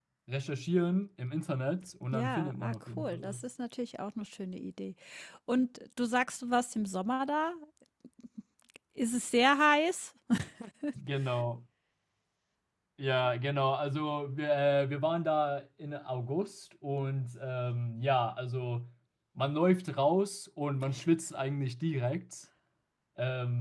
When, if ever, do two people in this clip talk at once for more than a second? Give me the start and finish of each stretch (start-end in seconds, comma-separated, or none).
2.1-3.4